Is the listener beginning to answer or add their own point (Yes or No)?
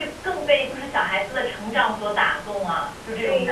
Yes